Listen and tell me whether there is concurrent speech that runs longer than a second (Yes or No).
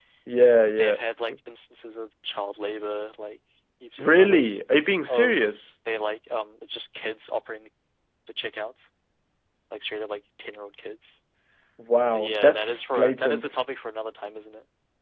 Yes